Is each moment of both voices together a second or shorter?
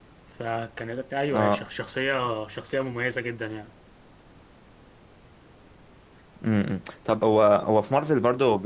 Yes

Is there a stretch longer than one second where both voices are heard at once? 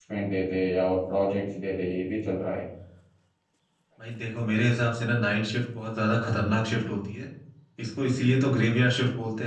No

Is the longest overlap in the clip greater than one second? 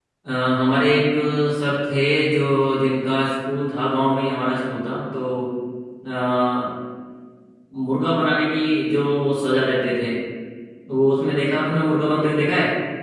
No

